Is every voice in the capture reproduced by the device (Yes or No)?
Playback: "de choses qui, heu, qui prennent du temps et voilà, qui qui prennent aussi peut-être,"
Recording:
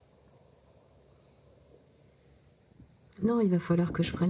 No